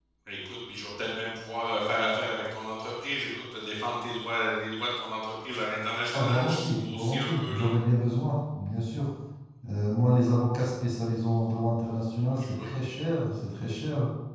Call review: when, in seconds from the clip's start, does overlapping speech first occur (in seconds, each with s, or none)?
6.1 s